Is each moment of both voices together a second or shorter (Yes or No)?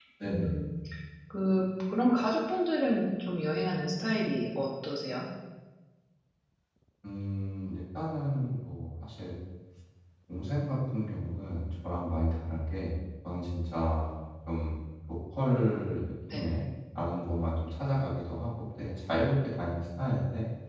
Yes